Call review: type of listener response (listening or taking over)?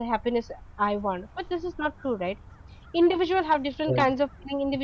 listening